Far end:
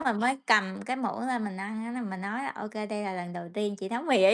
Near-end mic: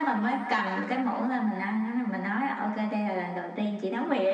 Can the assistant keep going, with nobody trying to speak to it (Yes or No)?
Yes